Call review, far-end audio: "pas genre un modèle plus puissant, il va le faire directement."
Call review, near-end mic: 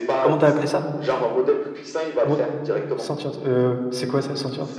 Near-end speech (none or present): present